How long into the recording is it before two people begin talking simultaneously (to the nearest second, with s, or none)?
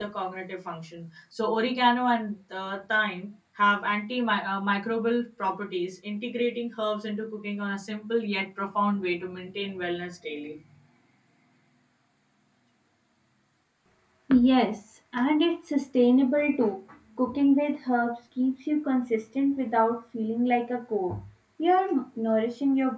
none